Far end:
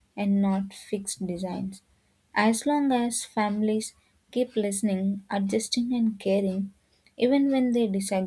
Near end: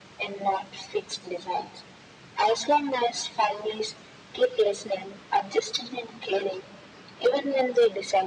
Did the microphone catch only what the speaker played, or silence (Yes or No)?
Yes